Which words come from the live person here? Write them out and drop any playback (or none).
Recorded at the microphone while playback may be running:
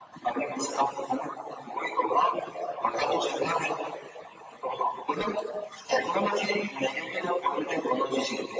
none